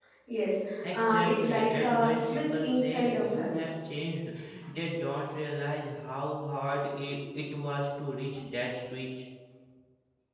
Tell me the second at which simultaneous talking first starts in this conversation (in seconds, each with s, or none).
0.9 s